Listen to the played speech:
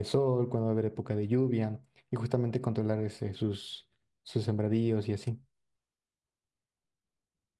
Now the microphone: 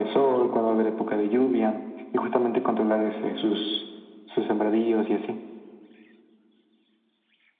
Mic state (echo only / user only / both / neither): echo only